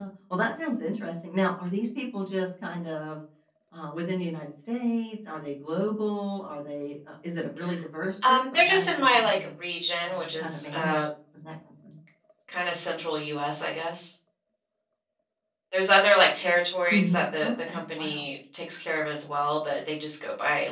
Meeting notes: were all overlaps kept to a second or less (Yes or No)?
No